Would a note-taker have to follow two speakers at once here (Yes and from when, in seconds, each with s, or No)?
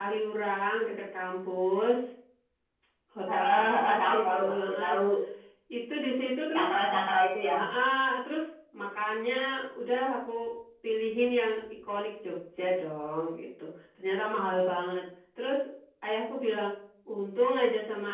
Yes, from 3.3 s